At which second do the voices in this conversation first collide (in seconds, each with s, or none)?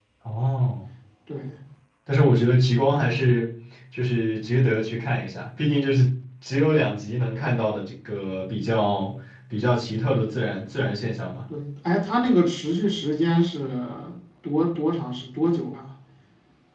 none